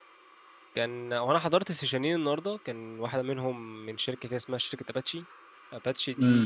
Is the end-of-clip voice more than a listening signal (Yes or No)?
Yes